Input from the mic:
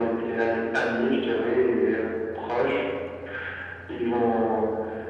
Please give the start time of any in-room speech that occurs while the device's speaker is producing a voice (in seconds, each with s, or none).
none